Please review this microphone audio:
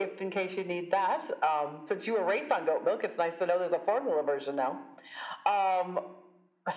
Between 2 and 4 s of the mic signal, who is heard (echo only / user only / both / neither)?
echo only